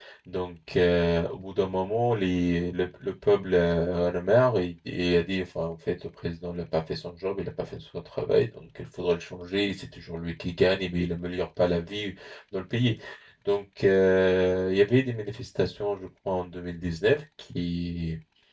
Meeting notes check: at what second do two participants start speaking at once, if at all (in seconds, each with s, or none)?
none